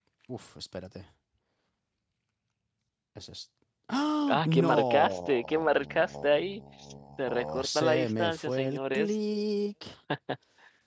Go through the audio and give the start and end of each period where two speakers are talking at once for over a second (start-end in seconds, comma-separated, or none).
4.3-6.6, 7.2-9.2